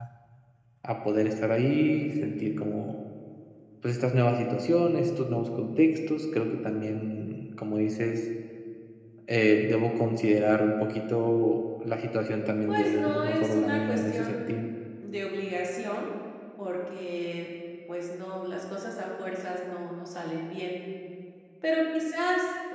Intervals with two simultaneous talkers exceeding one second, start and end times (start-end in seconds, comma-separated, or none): 12.7-14.6